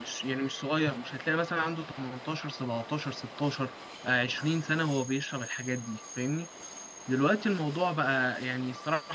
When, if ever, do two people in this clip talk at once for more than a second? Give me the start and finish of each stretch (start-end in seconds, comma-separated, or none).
none